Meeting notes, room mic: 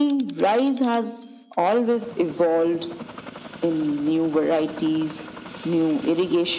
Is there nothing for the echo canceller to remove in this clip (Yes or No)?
No